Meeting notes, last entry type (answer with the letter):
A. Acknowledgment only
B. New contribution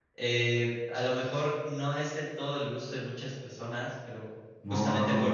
B